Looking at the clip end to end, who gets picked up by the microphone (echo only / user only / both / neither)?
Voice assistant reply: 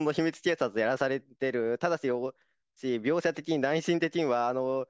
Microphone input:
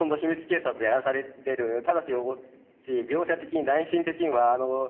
echo only